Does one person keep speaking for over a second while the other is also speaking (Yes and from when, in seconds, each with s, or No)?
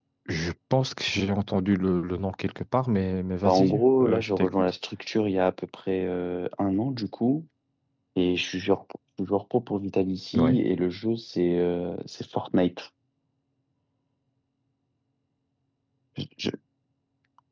Yes, from 3.4 s